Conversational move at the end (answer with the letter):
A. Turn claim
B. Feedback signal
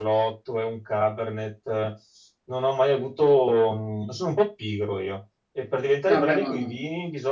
B